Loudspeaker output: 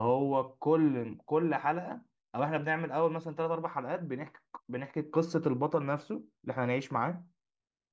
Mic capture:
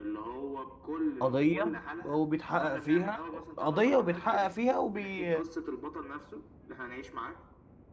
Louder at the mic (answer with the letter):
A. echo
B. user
B